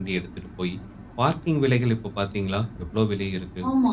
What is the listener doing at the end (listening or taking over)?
taking over